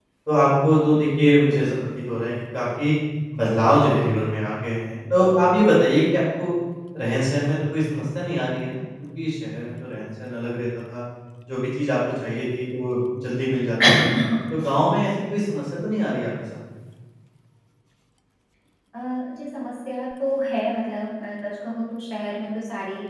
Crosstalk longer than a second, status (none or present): none